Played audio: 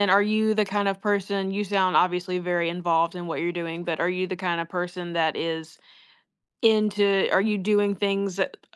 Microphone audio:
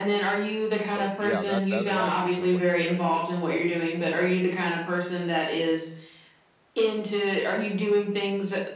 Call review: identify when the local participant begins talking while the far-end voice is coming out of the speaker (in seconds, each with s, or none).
0.9 s